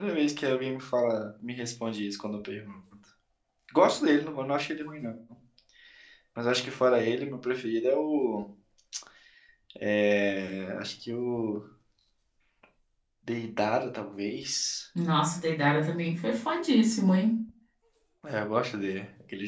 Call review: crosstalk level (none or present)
none